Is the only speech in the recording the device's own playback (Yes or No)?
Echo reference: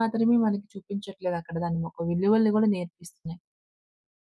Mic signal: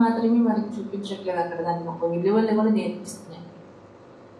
Yes